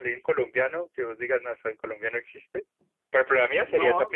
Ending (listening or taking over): taking over